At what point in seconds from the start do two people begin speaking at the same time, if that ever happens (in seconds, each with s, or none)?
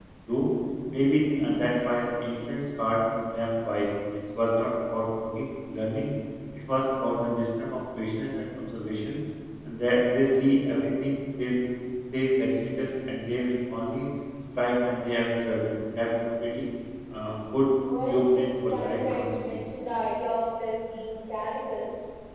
18.1 s